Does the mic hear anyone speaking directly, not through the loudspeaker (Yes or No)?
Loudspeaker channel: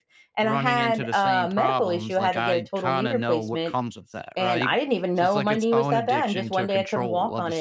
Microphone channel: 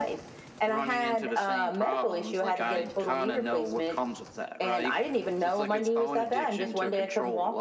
Yes